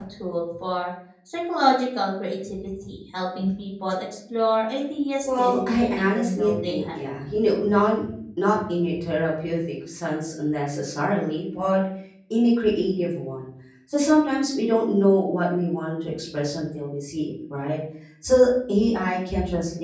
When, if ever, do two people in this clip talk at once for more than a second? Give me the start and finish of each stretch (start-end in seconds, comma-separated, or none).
5.2-7.0